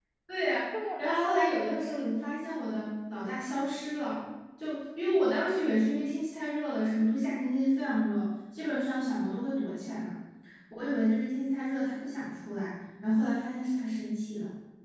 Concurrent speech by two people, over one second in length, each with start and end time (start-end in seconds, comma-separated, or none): 0.8-2.1